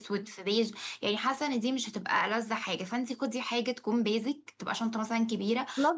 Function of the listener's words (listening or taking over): taking over